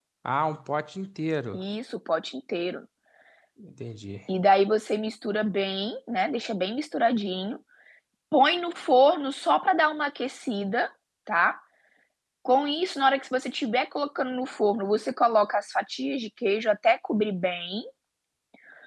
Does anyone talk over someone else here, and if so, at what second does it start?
none

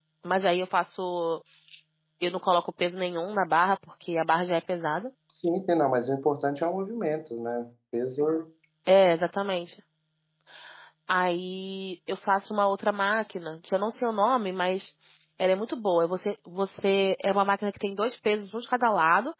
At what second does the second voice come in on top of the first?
none

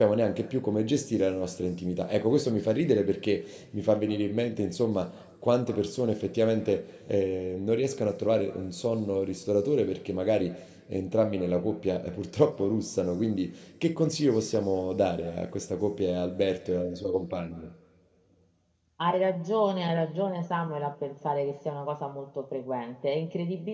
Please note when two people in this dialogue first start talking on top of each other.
none

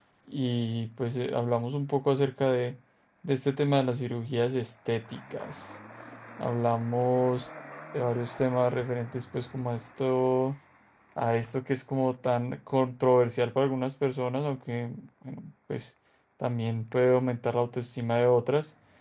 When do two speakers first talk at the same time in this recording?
none

